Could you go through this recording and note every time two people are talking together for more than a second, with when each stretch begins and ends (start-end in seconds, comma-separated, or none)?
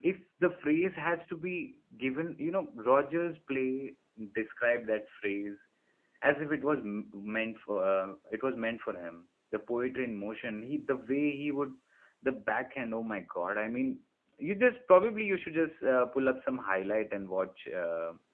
none